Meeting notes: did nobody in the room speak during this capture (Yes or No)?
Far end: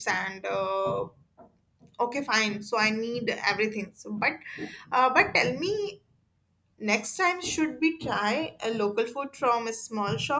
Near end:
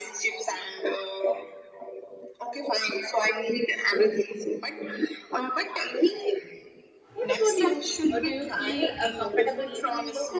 No